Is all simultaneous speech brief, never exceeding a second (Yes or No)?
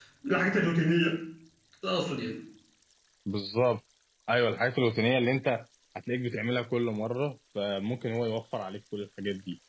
Yes